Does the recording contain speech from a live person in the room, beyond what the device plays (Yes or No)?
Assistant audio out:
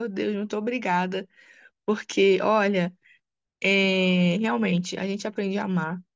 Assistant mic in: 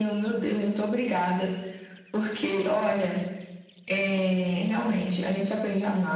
No